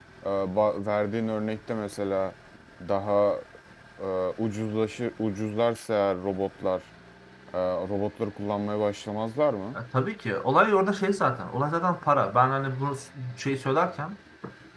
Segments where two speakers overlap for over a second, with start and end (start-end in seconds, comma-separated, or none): none